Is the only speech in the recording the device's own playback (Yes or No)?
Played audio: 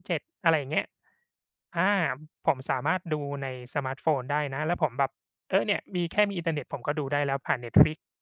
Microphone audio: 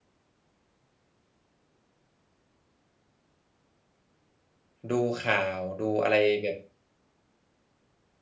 No